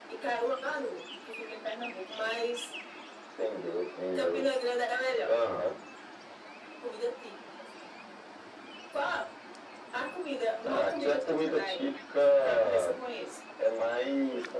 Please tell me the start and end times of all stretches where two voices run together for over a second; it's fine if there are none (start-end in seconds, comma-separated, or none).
10.6-11.8